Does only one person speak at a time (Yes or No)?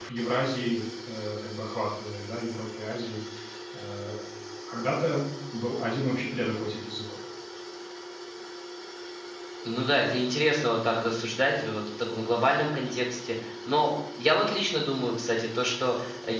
Yes